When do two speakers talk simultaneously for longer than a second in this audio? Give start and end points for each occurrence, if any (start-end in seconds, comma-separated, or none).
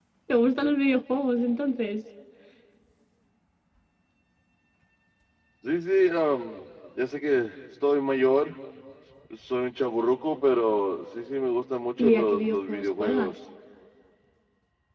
12.0-13.4